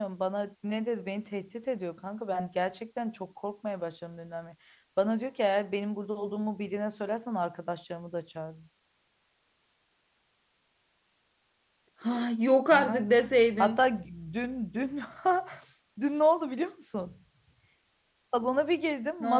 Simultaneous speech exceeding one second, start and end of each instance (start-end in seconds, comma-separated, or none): none